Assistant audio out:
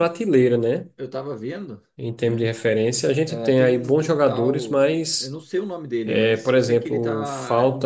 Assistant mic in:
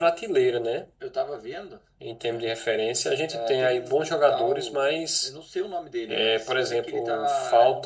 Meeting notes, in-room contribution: none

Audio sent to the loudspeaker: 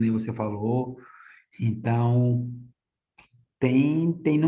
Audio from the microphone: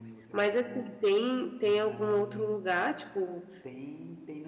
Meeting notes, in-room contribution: present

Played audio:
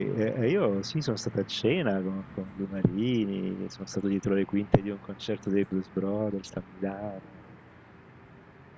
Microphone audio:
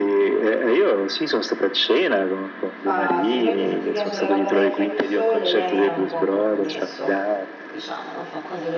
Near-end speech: present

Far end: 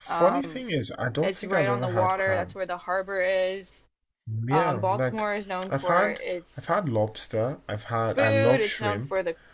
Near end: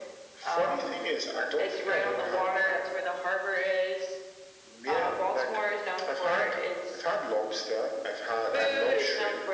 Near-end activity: none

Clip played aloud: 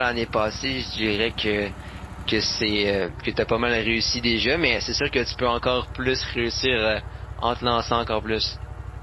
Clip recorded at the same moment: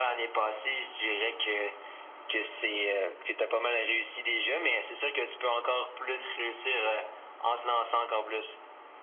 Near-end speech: none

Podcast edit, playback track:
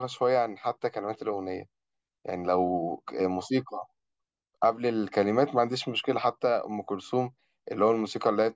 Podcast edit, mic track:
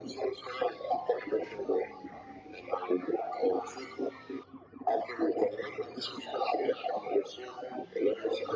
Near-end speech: none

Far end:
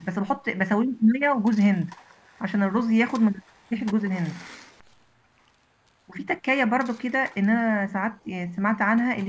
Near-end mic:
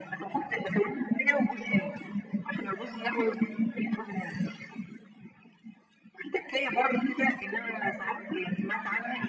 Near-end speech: present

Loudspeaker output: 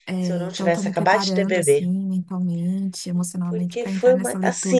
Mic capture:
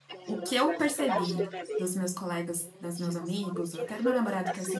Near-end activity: present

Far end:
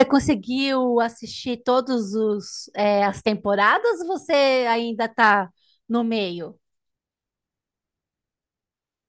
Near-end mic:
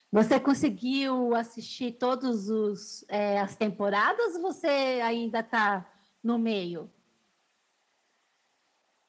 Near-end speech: none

